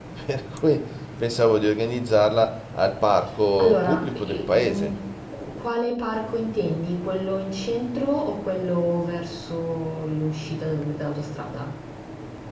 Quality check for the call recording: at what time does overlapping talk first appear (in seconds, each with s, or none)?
3.6 s